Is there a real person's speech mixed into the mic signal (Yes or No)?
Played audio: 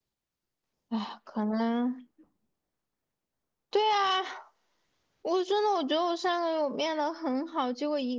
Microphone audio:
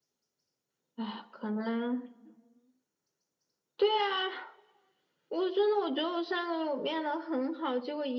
No